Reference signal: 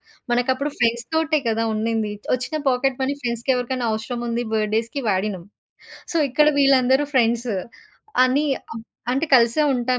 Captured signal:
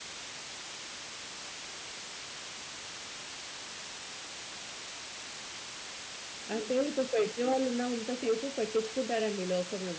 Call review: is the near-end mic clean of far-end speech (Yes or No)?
Yes